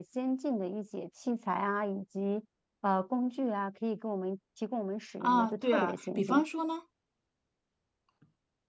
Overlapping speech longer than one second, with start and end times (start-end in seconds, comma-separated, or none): 5.2-6.4